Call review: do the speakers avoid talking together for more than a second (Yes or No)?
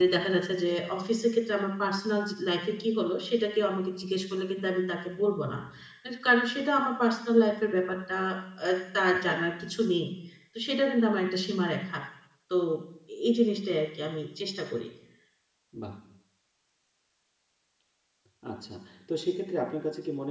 Yes